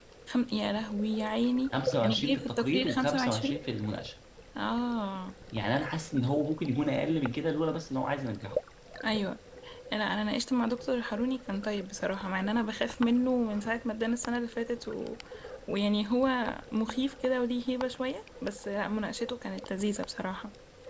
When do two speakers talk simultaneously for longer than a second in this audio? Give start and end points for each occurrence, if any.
2.0-3.6

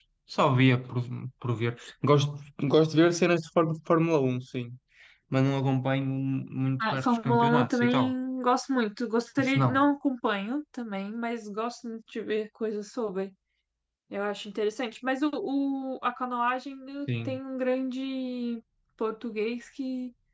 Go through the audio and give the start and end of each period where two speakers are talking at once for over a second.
6.8-8.1

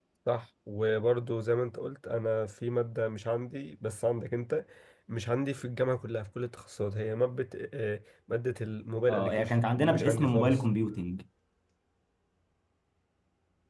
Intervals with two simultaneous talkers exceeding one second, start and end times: 9.1-10.6

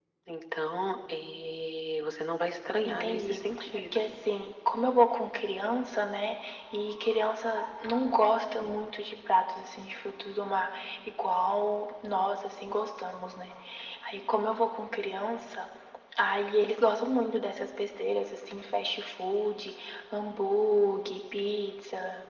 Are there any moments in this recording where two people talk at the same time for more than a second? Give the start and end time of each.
2.9-4.4

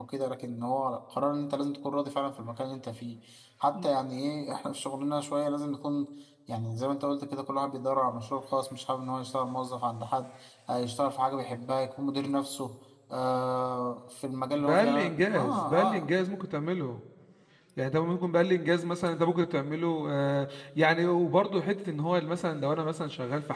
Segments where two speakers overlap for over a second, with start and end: 14.6-16.0

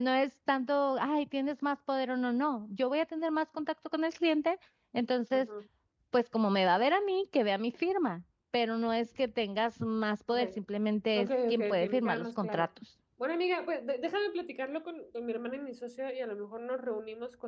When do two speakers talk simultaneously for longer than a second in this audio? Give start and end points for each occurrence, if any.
11.1-12.7

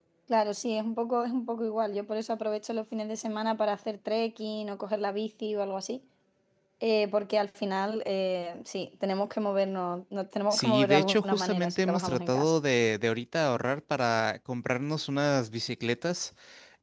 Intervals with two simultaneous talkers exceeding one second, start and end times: 10.5-12.5

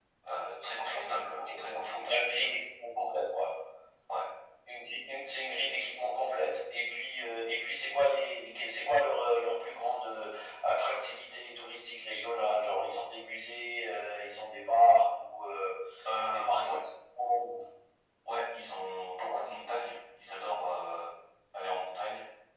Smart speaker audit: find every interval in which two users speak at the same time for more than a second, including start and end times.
0.6-2.4

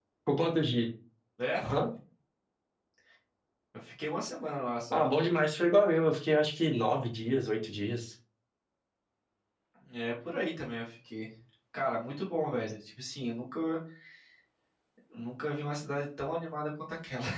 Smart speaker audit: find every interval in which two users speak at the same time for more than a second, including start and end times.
none

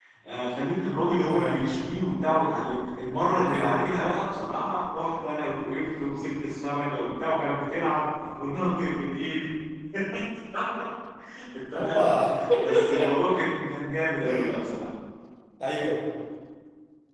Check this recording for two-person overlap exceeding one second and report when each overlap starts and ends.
none

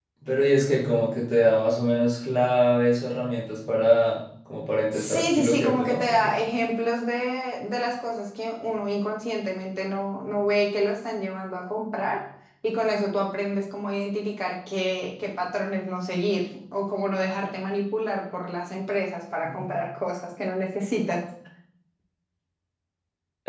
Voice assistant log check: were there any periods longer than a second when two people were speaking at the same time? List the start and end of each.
4.9-6.3

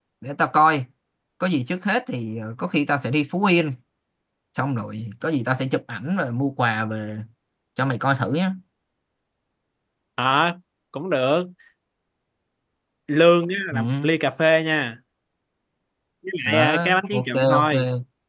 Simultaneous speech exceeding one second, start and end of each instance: 16.4-17.7

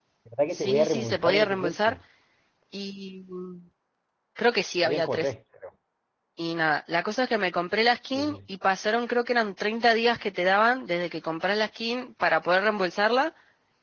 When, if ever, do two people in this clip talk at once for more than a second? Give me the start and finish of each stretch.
0.5-2.0

